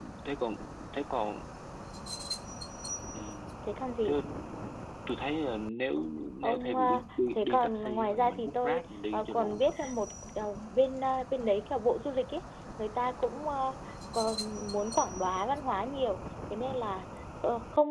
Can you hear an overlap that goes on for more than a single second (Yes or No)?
Yes